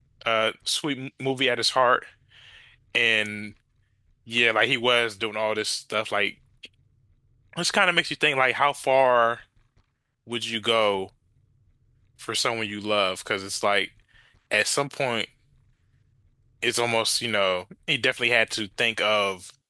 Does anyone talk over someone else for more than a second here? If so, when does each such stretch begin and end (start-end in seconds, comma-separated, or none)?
none